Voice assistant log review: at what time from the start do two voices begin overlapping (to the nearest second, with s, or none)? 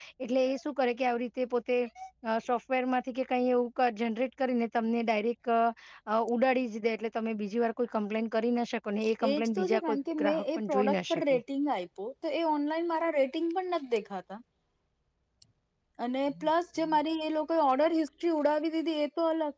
9 s